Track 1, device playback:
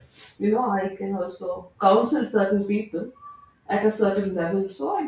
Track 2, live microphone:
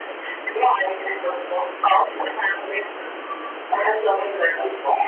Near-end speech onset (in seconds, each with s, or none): none